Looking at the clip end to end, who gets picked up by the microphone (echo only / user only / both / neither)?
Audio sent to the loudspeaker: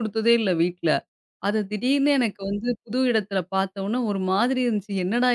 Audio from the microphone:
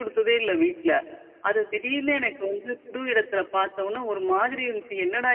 echo only